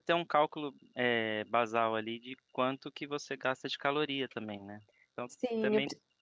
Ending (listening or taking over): taking over